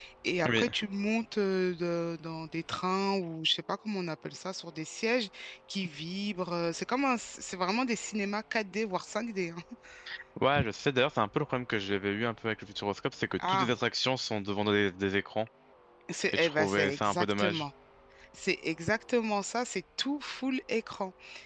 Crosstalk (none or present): present